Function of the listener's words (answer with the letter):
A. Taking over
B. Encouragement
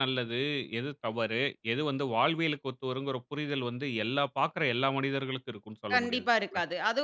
A